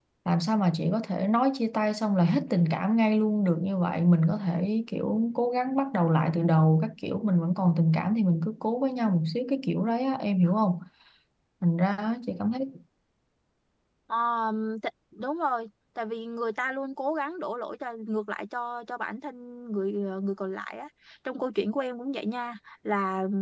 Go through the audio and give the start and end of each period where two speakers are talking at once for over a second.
none

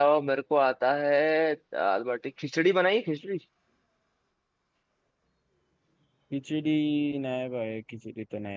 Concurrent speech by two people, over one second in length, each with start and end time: none

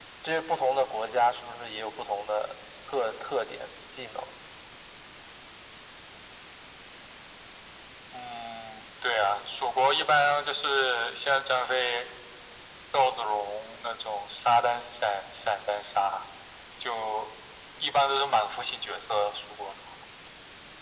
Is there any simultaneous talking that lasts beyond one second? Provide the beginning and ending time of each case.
none

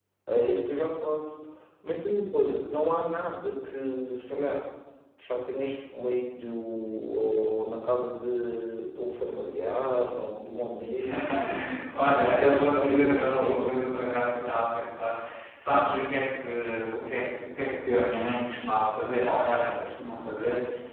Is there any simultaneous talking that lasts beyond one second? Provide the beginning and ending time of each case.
12.1-13.8

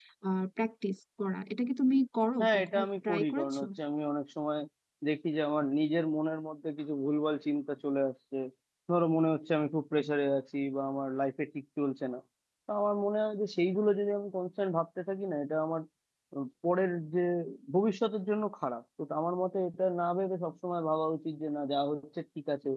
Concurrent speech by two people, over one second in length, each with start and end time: 2.4-3.6

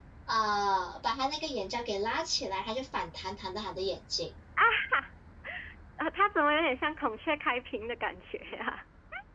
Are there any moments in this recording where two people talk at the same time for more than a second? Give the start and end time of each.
none

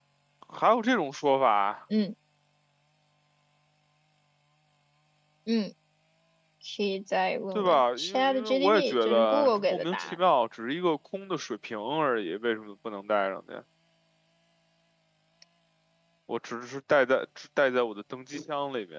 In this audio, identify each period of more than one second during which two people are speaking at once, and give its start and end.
7.5-10.2

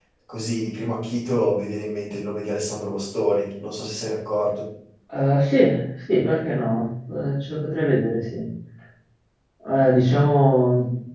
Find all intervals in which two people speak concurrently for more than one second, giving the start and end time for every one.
none

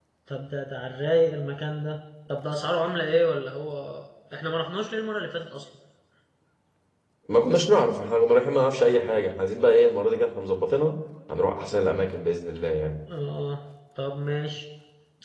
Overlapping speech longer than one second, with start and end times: none

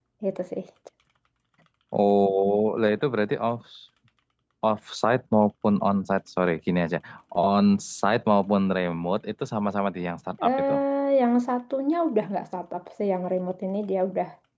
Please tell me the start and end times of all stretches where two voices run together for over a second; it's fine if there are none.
none

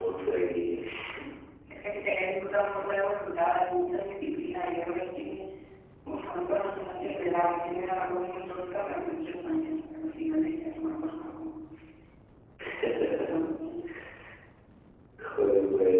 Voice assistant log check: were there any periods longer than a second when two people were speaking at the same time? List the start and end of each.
none

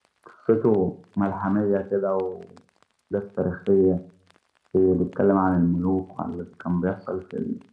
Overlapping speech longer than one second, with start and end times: none

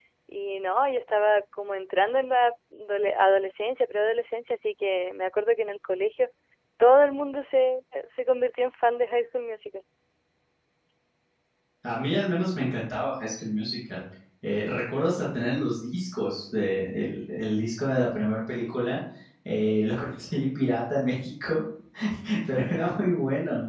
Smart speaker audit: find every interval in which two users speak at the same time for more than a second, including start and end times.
none

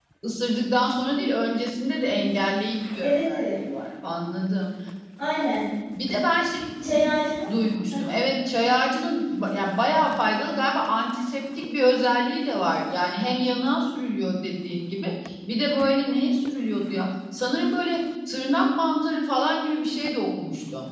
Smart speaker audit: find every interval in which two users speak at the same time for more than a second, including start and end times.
none

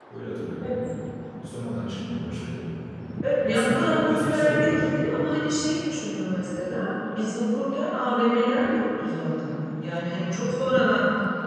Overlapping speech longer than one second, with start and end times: 3.4-4.9

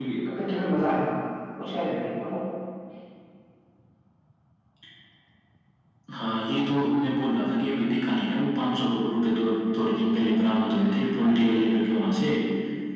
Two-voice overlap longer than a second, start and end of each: none

